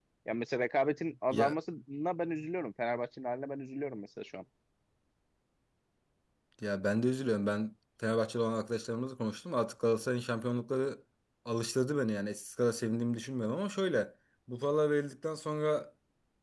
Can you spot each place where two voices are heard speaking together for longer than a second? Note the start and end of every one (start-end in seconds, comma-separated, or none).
none